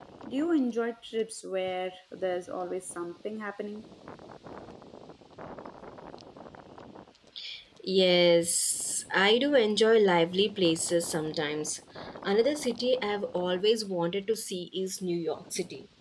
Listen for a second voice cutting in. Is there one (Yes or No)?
No